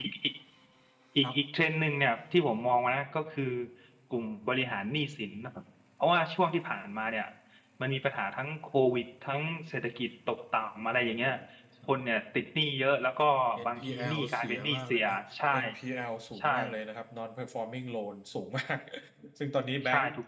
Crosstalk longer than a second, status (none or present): present